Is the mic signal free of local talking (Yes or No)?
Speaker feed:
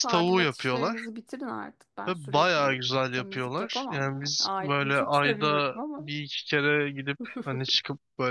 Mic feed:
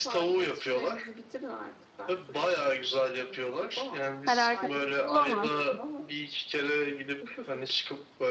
No